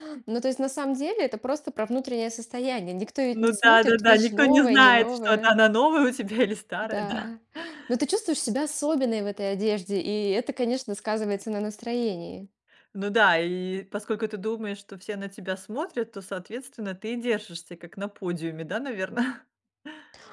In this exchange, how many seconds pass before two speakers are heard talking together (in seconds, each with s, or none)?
3.3 s